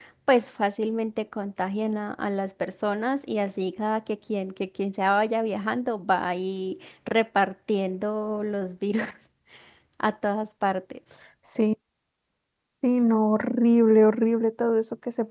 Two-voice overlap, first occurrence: none

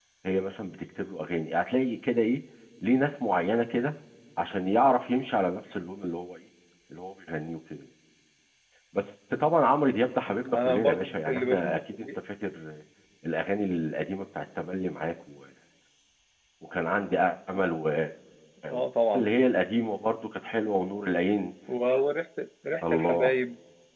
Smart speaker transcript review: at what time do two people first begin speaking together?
10.5 s

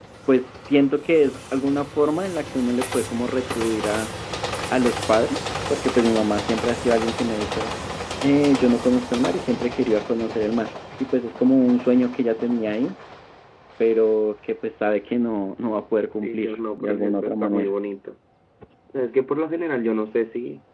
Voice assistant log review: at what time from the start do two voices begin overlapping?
16.2 s

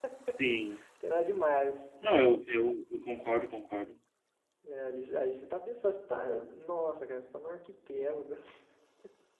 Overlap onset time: none

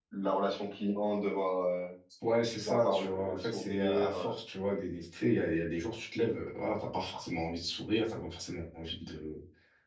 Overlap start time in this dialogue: 2.5 s

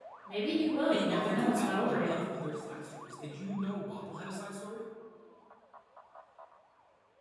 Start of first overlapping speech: 0.9 s

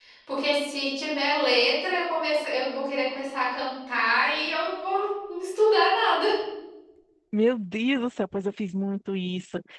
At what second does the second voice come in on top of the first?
none

